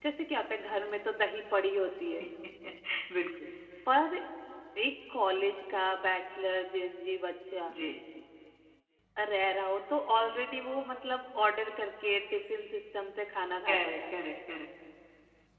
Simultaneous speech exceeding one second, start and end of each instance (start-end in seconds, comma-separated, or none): none